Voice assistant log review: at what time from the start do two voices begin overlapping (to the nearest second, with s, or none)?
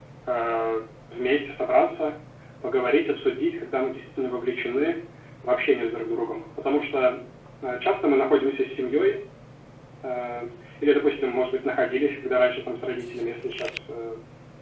none